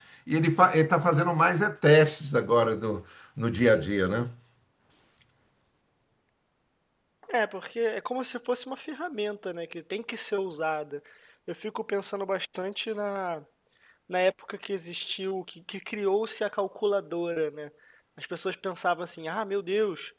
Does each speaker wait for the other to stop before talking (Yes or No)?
Yes